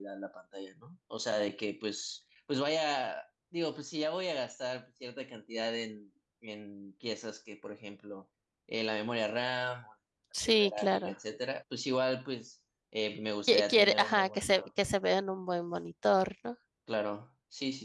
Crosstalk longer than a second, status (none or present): present